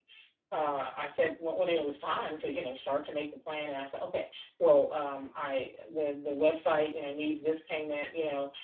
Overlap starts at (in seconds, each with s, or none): none